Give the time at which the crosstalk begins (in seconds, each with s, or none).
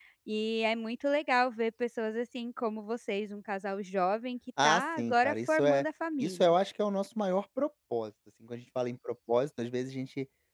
4.6 s